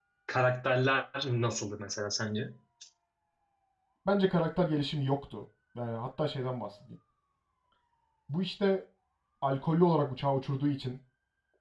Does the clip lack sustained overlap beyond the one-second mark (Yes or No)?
Yes